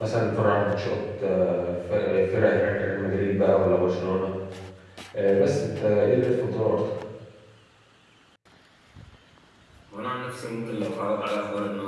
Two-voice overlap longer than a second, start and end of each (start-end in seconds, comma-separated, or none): none